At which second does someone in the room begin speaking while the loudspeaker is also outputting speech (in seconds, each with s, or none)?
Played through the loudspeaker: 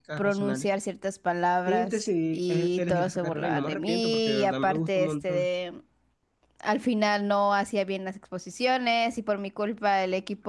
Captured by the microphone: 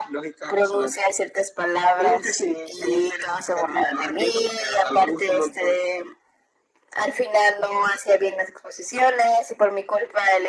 none